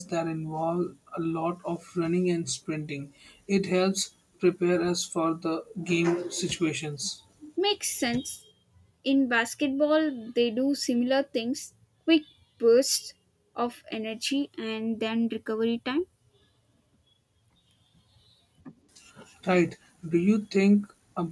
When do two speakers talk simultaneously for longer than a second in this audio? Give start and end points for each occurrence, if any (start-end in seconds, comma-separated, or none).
none